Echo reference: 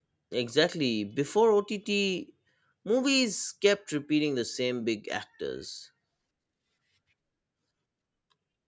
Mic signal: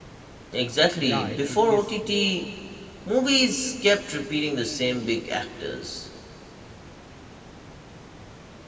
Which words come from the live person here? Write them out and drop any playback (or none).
Yeah, agree. Yes, yes,